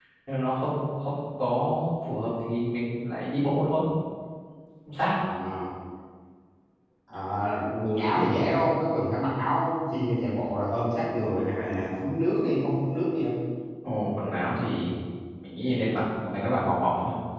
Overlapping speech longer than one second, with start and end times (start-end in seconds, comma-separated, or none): none